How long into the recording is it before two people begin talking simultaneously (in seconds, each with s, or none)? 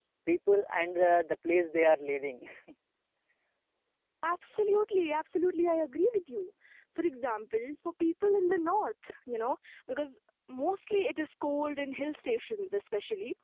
none